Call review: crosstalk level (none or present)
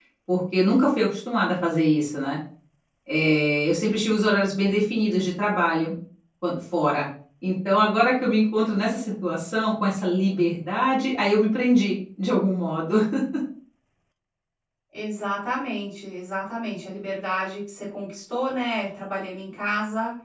none